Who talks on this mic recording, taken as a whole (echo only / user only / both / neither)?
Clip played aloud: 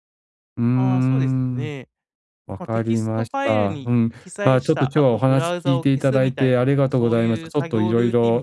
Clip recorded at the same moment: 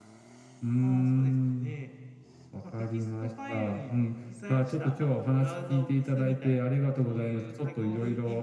echo only